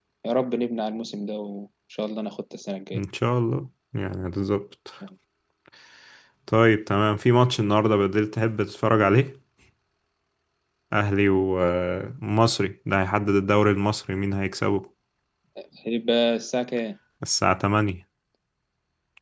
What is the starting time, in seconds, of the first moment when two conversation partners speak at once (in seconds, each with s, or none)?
none